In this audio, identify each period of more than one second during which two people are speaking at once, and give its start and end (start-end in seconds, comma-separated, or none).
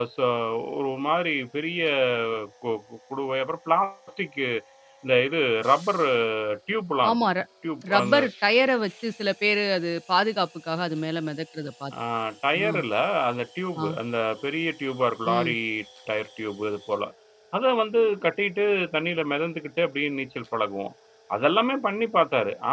none